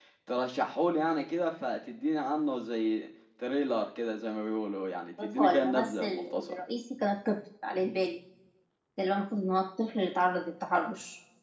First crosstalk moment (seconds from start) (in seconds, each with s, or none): 5.2 s